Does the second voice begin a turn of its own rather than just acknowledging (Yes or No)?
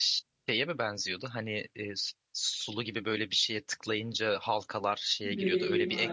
Yes